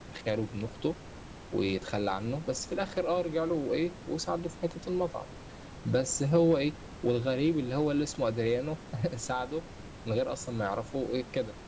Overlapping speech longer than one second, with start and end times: none

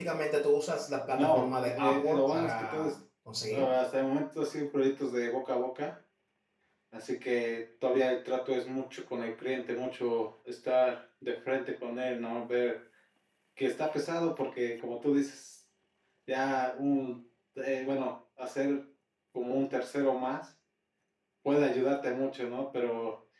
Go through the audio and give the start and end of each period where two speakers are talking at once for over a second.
1.1-2.9

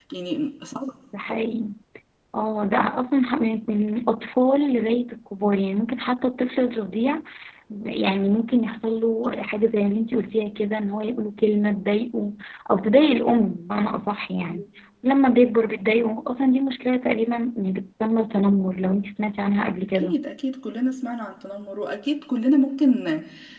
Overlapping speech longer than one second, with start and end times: none

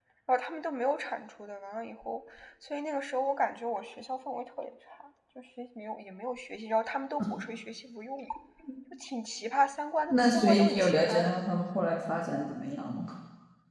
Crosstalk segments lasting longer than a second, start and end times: 10.1-11.3

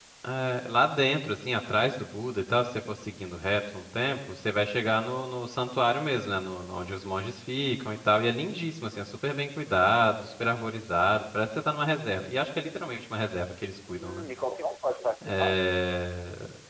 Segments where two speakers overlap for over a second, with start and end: none

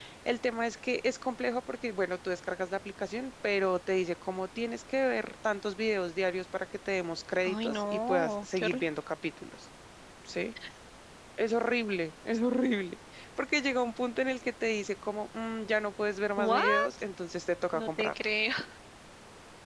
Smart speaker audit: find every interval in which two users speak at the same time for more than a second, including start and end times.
7.4-8.9

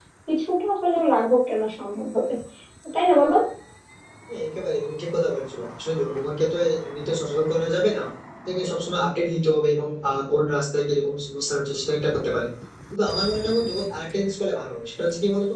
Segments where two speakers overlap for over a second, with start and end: none

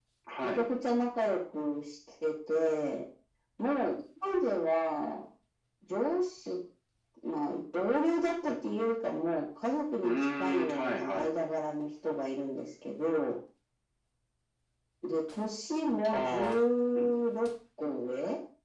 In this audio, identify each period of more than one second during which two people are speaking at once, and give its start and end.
10.0-11.3

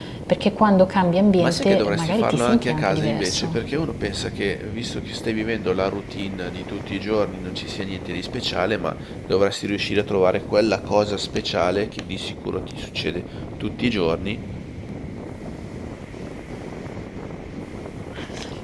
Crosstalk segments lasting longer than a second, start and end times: 1.4-3.6

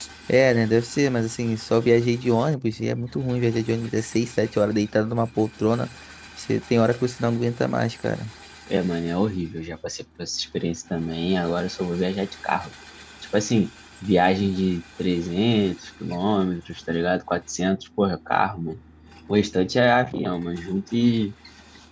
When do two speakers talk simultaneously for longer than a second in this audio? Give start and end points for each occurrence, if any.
none

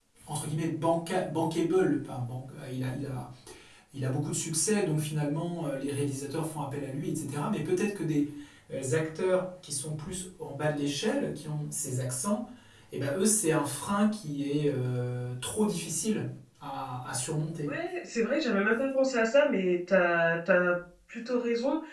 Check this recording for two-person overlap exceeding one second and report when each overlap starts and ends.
none

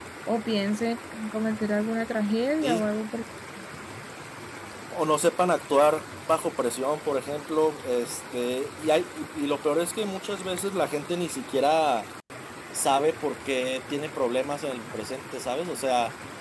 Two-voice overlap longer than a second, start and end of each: none

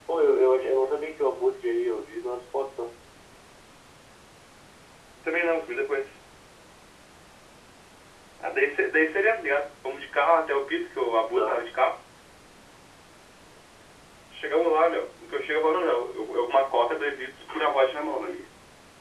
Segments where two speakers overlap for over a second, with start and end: none

